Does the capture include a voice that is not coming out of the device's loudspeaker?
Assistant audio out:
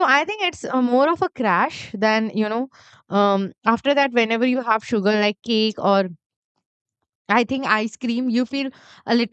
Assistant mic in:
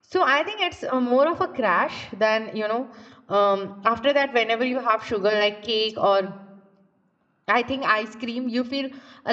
No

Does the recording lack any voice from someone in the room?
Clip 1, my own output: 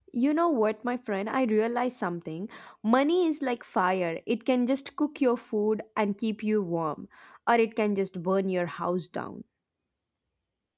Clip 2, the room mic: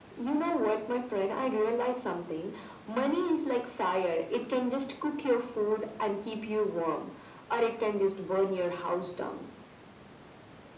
Yes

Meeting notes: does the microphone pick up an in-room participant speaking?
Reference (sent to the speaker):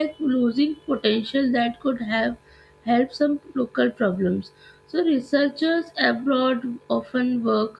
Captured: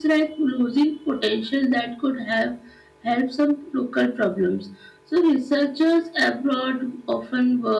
No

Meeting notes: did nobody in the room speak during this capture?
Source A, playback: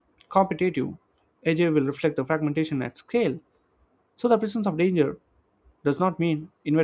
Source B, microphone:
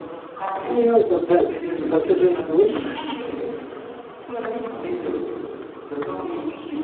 No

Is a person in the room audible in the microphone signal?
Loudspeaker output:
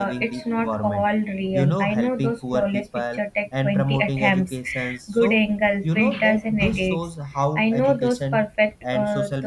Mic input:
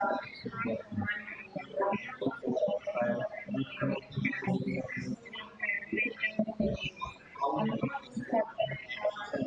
No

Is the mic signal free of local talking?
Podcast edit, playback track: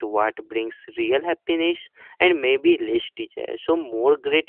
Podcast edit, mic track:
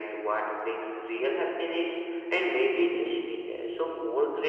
Yes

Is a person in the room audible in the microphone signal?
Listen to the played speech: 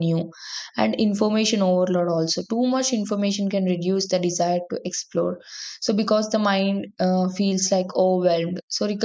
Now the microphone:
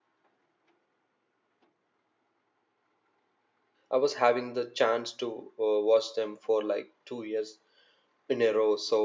Yes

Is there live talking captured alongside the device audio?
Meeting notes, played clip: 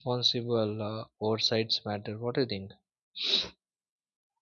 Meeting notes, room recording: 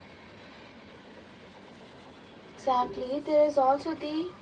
Yes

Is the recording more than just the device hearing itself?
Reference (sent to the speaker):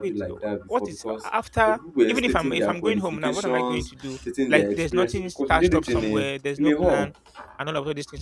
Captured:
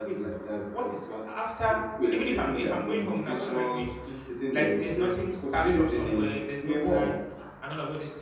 No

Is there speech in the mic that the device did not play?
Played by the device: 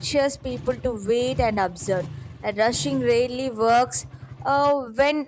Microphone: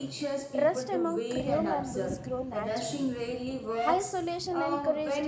Yes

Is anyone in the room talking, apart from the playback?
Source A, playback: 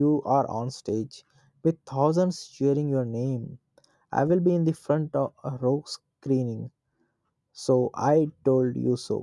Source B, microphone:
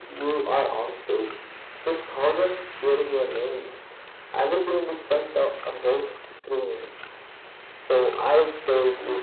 No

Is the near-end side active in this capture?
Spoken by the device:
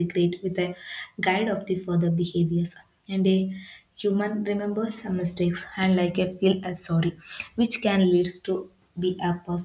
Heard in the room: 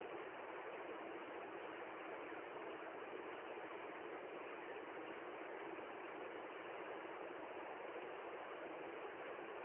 No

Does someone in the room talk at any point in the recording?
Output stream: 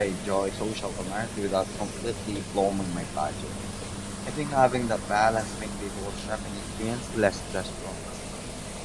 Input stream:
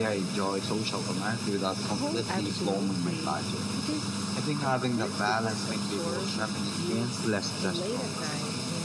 Yes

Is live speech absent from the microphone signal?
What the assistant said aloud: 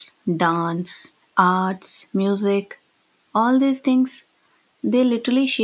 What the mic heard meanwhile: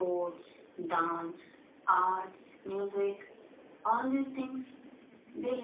Yes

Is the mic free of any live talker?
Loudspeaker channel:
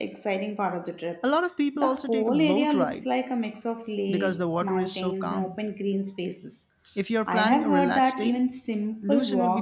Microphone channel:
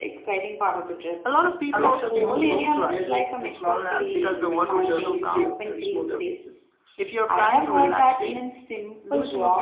No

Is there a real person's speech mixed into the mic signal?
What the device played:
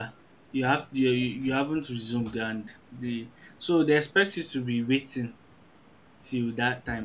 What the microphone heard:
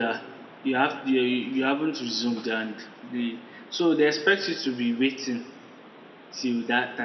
No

